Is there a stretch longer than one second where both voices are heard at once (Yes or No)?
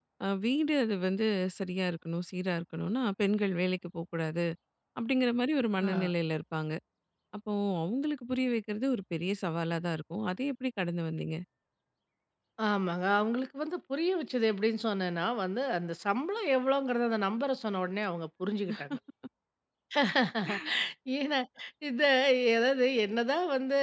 No